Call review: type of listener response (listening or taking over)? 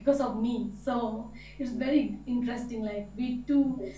listening